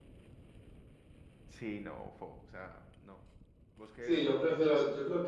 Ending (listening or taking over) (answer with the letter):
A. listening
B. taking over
B